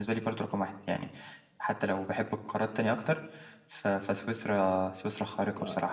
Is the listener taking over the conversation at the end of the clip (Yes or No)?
Yes